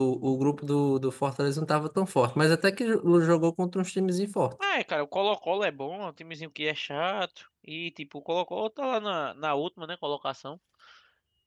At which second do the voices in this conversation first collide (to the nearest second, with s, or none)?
none